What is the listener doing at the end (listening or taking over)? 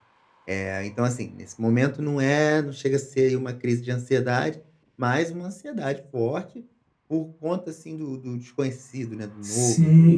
taking over